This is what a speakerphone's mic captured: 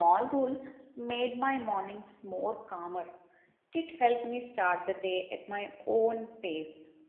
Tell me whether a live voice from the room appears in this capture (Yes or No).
Yes